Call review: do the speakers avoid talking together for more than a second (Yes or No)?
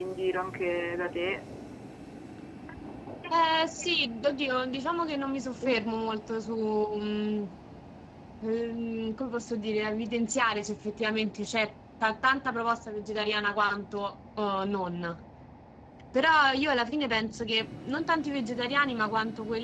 Yes